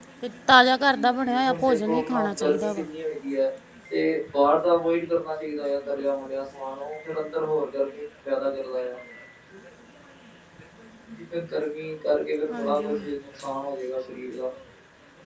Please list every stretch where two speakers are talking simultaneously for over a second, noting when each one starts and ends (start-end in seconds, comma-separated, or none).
0.9-2.8